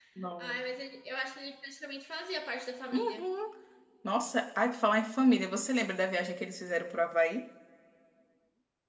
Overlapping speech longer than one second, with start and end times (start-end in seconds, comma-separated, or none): none